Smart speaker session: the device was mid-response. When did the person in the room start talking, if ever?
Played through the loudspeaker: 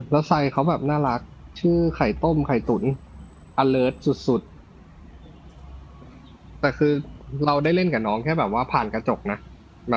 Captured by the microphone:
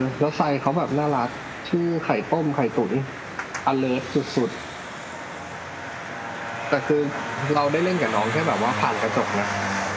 none

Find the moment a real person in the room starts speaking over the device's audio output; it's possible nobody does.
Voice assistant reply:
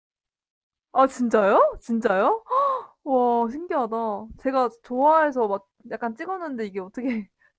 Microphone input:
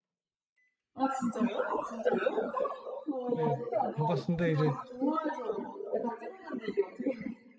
3.3 s

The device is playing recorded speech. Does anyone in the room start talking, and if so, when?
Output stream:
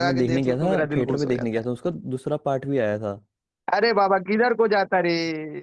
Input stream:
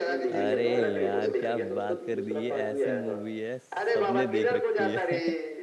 0.3 s

